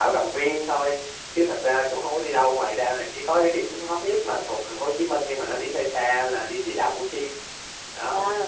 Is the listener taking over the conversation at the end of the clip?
Yes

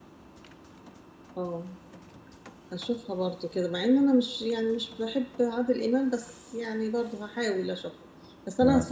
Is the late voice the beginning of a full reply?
No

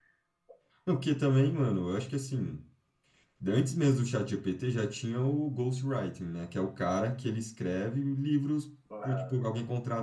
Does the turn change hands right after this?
No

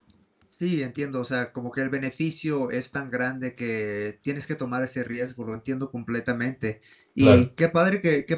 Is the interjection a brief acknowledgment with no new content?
Yes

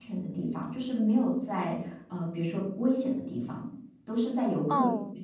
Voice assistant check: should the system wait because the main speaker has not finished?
No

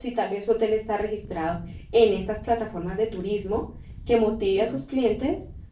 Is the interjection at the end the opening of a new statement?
No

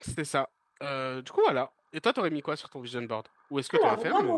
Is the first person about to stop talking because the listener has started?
Yes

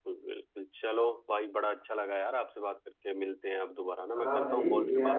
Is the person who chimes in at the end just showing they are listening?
No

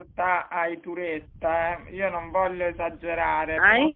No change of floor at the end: Yes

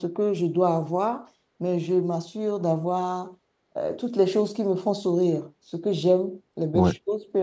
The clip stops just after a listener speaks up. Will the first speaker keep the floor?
Yes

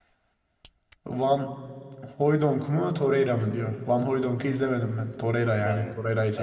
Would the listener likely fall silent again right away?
No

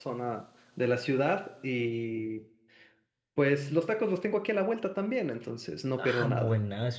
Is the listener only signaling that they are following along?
No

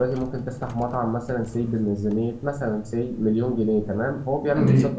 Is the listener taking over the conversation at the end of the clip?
No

